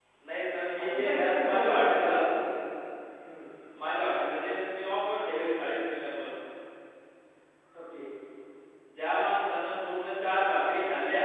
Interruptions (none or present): present